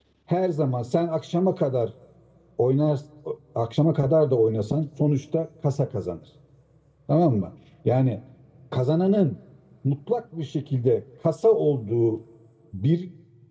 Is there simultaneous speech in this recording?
No

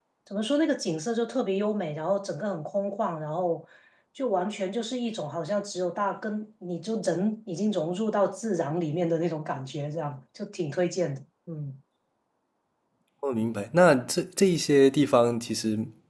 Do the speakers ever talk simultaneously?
No

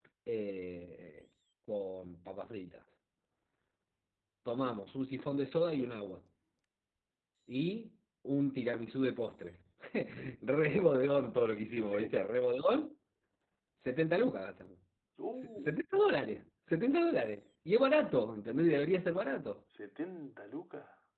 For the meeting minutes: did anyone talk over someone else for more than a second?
No

